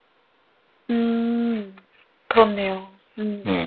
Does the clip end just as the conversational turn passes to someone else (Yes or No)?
Yes